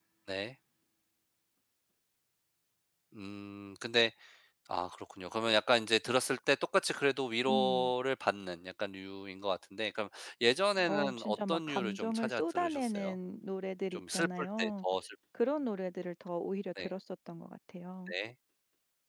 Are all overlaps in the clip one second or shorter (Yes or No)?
No